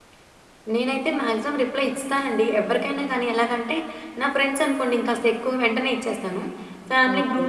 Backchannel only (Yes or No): Yes